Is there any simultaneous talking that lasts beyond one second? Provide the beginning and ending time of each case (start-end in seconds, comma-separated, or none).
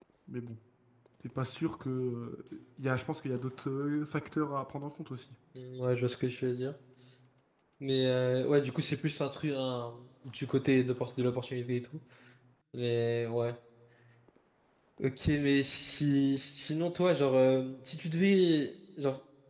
none